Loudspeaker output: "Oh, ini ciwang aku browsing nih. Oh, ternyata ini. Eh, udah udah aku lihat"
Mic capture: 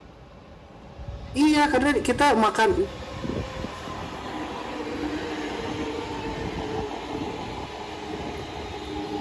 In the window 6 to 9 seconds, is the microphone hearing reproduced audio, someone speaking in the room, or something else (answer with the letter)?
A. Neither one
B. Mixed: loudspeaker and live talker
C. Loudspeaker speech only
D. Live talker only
A